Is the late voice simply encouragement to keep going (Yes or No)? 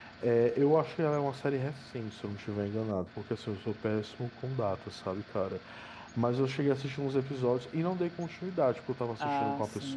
Yes